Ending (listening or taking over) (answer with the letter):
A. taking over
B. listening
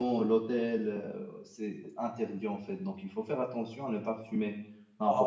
A